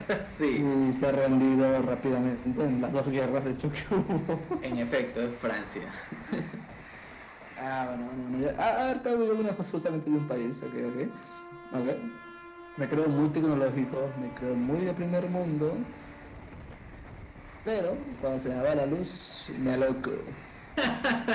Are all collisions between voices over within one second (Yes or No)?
Yes